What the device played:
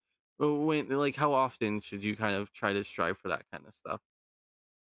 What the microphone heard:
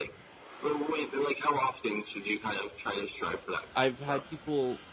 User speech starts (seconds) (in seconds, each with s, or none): 3.7 s